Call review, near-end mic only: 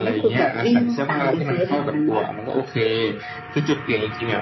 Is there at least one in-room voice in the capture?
No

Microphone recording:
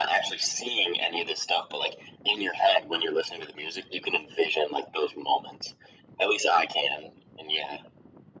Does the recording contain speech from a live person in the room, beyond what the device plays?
No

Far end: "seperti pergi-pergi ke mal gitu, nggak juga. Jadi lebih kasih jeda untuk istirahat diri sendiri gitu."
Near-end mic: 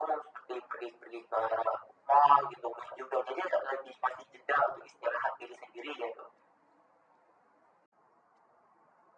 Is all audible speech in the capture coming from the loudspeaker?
Yes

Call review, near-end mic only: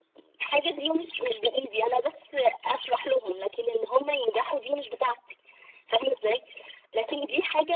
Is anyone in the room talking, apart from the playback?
No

